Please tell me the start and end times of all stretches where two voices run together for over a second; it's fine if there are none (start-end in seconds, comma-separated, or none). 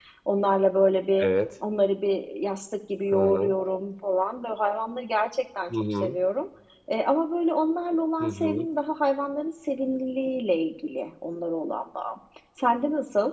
none